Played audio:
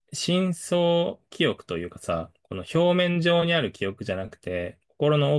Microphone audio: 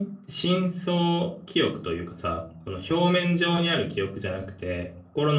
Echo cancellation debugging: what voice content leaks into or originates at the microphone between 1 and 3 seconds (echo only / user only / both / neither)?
echo only